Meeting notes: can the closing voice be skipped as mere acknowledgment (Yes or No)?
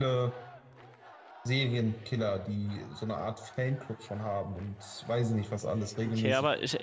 No